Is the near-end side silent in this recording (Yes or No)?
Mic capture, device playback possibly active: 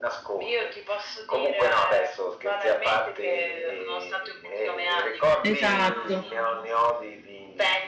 No